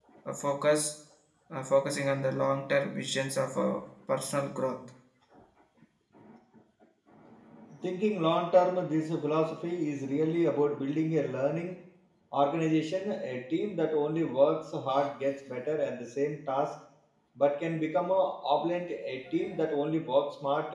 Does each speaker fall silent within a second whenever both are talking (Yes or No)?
Yes